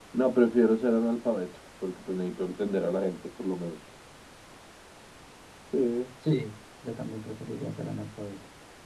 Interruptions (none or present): none